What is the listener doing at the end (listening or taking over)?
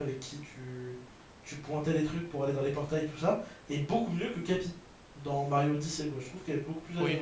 taking over